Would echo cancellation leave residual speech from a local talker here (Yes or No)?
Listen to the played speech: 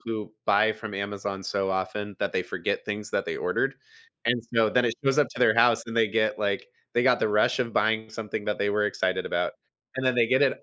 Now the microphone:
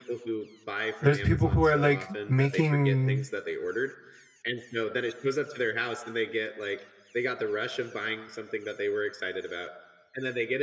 Yes